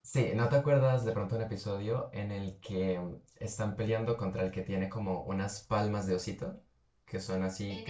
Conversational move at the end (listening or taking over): taking over